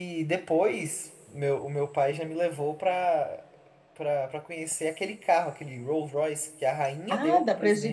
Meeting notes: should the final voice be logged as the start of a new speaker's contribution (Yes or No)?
Yes